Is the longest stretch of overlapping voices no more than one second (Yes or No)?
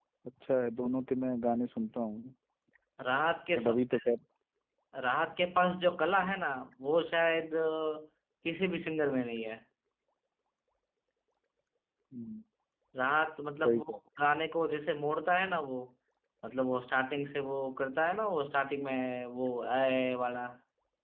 Yes